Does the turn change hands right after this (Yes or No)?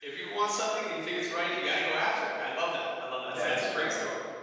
Yes